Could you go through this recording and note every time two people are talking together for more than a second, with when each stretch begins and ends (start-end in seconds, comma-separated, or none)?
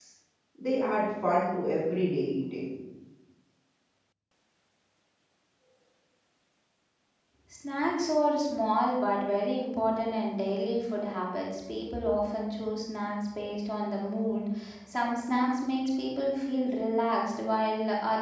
none